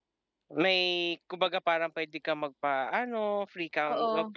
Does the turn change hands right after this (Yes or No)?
No